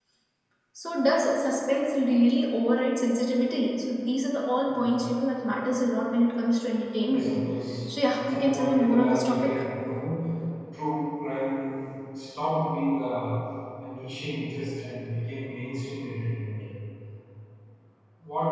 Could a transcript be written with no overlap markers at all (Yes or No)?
No